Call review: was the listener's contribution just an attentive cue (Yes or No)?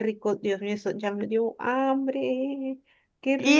No